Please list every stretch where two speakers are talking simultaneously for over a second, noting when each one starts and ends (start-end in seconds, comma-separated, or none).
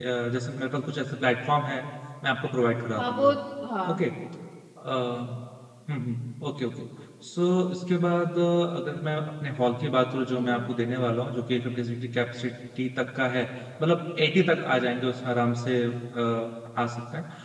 none